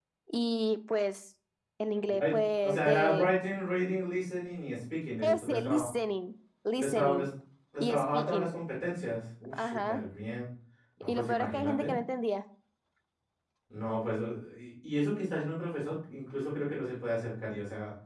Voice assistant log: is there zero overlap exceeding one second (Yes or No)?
No